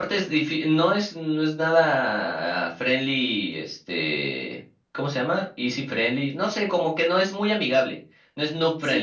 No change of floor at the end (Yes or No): No